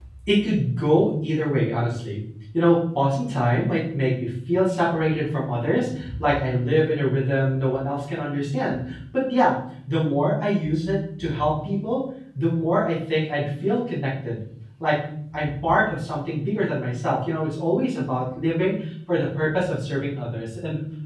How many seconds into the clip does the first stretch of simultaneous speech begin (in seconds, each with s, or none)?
none